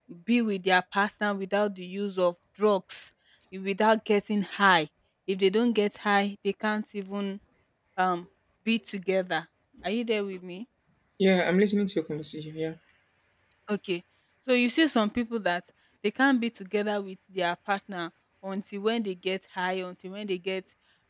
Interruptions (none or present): none